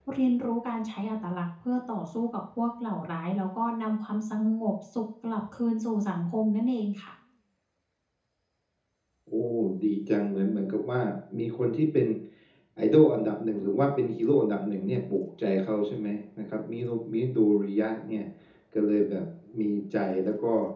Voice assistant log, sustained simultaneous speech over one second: none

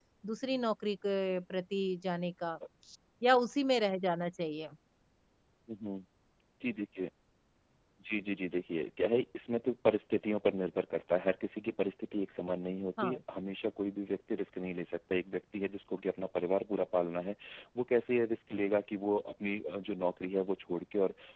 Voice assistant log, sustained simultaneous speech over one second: none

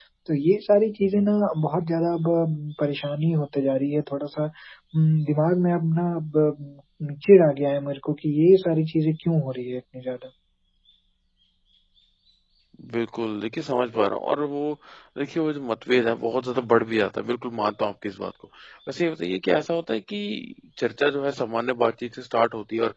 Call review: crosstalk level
none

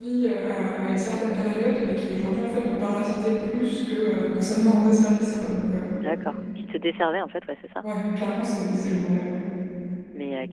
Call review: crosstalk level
none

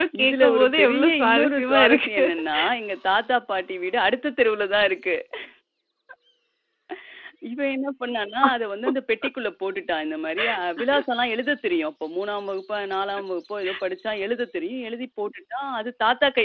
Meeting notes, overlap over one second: present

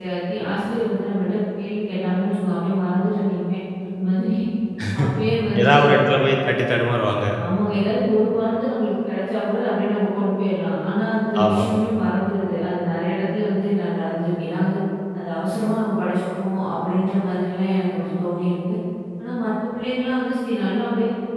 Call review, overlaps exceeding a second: none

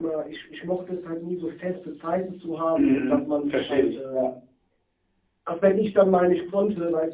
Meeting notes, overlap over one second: present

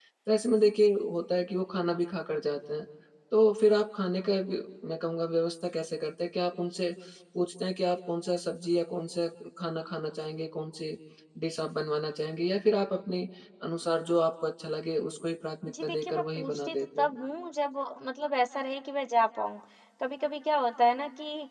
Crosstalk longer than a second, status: present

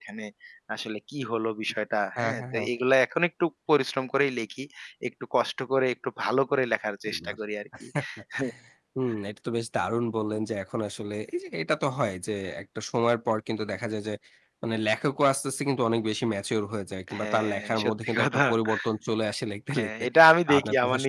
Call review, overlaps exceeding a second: present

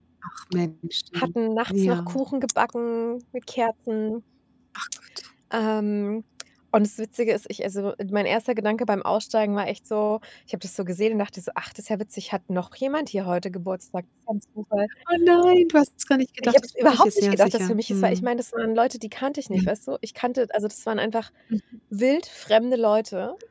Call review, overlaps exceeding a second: present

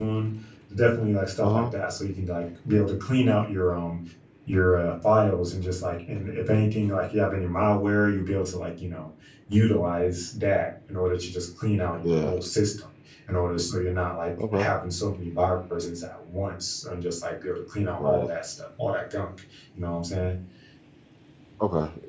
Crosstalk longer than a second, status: none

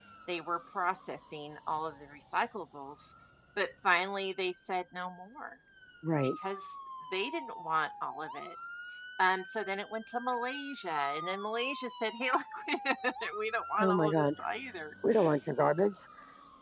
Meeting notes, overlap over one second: none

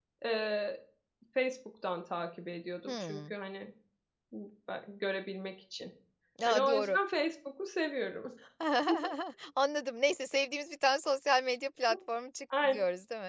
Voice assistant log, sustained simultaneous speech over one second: none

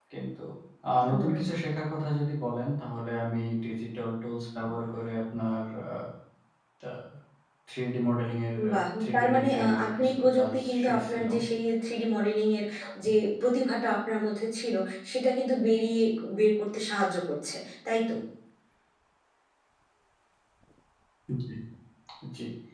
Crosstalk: present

